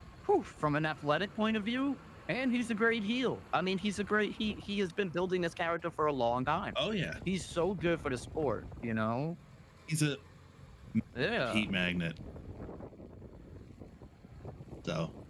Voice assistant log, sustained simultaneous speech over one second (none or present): none